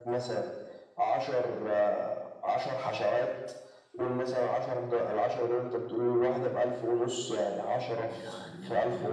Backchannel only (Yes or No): Yes